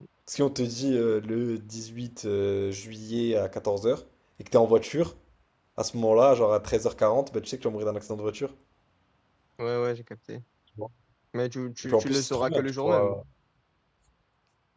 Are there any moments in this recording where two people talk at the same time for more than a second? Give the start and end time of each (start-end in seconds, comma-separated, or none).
11.8-13.2